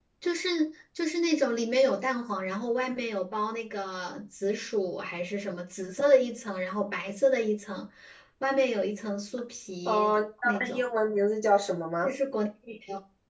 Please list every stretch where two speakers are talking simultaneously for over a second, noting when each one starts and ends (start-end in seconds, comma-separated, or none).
none